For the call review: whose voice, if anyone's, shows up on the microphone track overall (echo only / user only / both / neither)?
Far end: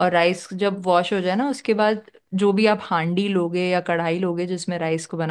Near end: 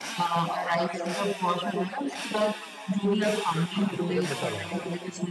both